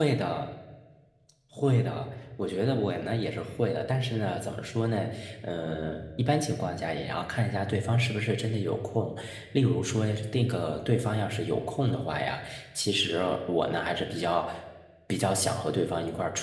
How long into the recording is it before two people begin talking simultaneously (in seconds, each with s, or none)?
none